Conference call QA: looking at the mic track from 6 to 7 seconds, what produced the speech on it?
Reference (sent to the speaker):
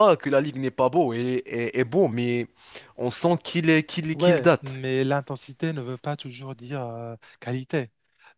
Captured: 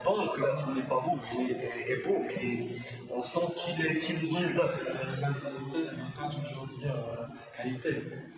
echo only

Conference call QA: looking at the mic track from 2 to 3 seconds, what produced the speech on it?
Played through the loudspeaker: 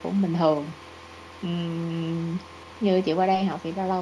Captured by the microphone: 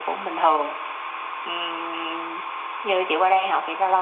echo only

